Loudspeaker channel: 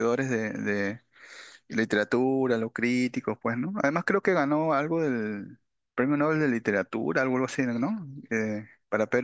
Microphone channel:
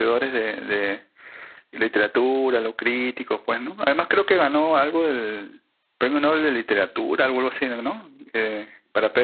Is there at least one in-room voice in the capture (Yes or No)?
No